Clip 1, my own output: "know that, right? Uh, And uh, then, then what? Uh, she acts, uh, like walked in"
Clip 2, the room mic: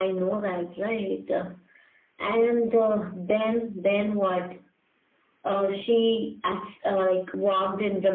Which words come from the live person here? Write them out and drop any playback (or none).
none